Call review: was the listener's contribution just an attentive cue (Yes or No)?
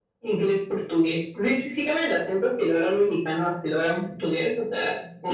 No